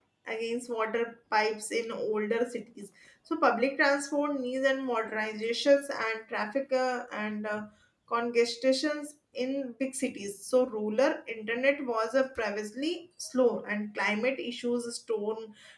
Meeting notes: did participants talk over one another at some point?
No

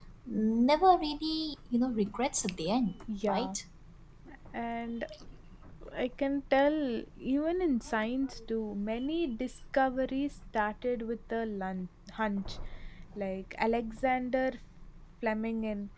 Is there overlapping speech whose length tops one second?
No

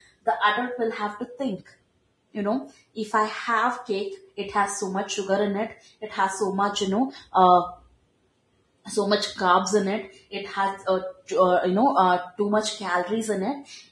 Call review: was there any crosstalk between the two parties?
No

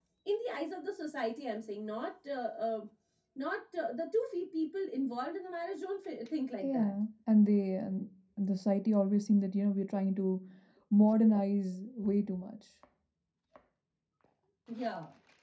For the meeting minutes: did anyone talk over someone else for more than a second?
No

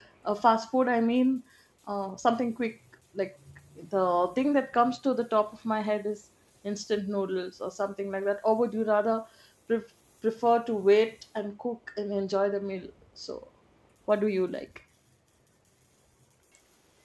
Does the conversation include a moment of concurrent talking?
No

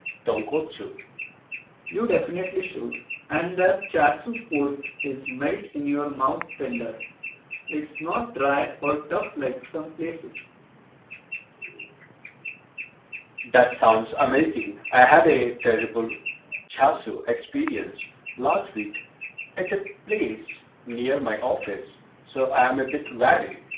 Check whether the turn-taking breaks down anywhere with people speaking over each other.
No

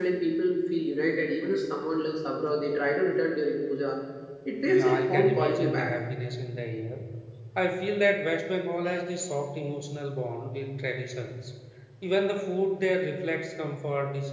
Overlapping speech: Yes, from 4.6 s

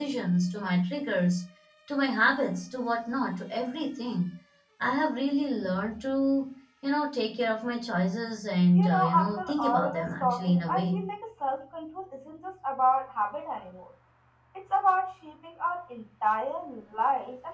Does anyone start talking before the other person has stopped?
Yes, from 8.7 s

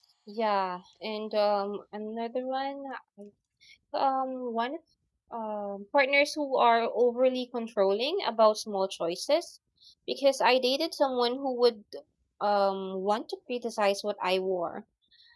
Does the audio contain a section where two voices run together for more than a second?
No

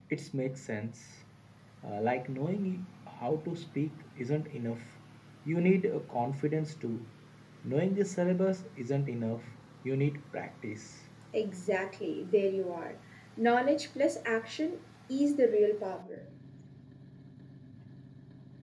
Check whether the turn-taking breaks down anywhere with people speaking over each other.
No

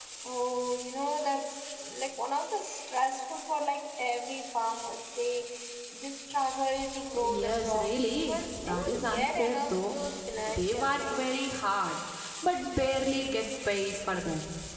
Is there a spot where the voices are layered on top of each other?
Yes, from 7.1 s

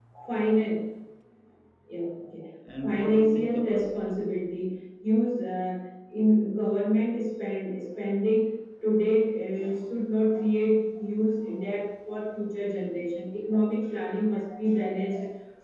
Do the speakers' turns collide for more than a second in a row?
Yes, from 2.7 s

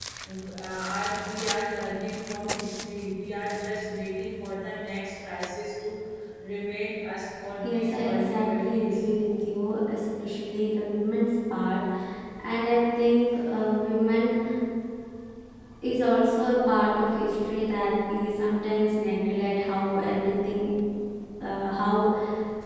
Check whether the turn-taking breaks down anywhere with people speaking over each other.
Yes, from 7.6 s

